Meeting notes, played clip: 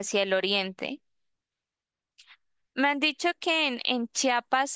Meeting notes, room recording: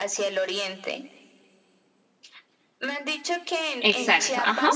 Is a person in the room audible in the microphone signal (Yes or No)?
Yes